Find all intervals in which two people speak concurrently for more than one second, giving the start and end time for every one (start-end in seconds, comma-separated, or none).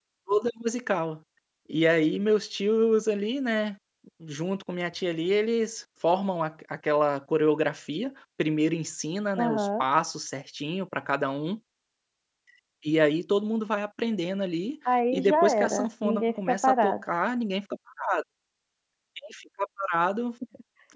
15.1-16.9